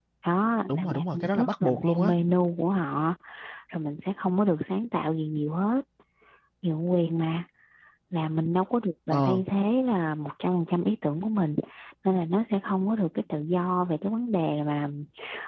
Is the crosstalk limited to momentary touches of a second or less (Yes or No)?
No